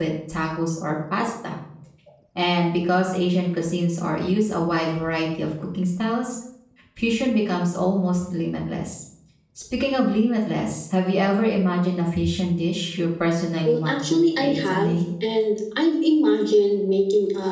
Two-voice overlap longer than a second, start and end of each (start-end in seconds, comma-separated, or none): 13.7-15.0